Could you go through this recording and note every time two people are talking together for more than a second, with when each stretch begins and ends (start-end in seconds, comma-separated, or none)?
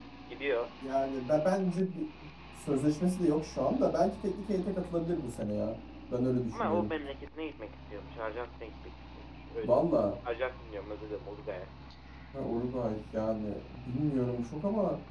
none